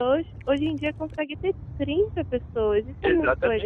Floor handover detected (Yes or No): Yes